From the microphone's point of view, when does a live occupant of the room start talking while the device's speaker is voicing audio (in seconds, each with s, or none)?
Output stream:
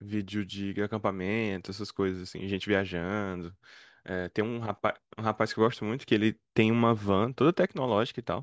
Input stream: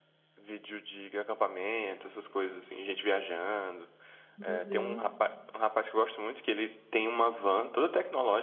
4.4 s